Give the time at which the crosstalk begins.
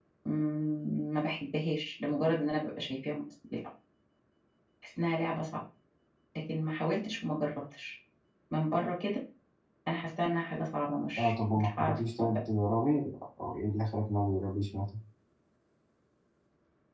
11.2 s

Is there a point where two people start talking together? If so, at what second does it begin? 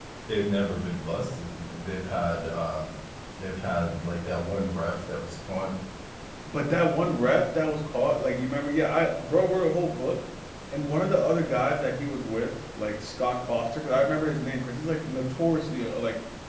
none

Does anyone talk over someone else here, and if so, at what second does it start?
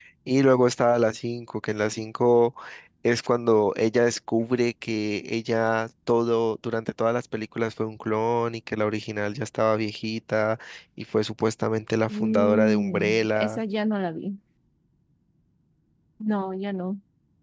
12.1 s

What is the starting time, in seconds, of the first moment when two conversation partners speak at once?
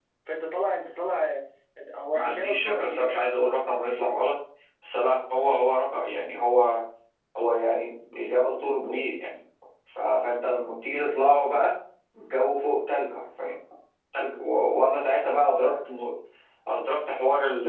2.2 s

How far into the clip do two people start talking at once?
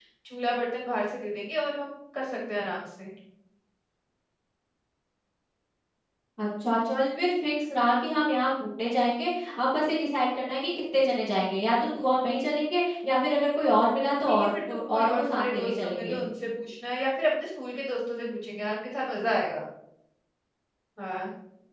14.3 s

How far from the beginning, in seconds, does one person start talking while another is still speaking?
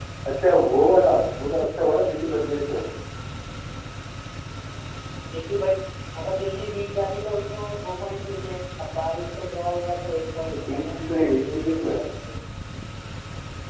10.5 s

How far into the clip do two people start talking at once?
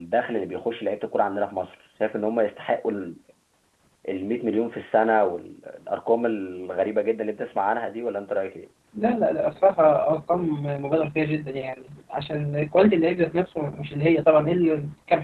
none

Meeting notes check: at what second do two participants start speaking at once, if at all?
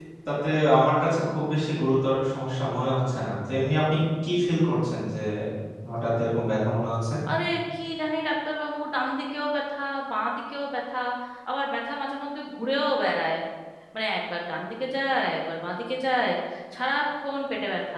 none

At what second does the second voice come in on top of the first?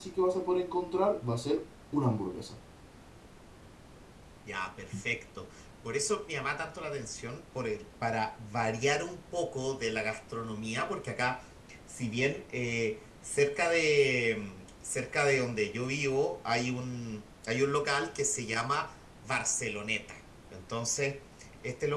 none

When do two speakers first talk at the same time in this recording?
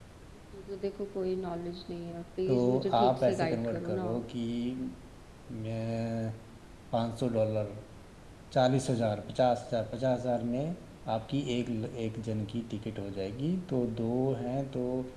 2.5 s

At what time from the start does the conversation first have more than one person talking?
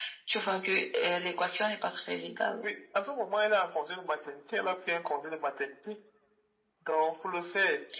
none

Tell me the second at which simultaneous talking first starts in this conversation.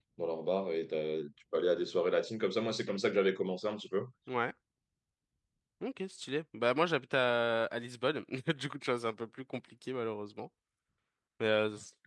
none

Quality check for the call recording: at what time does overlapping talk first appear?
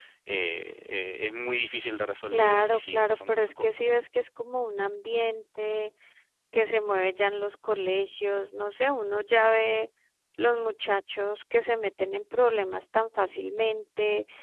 2.3 s

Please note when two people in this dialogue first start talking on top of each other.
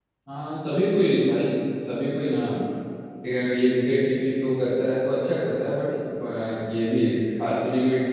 none

